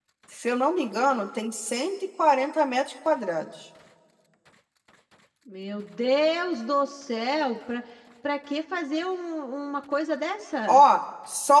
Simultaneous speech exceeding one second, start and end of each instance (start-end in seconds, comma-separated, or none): none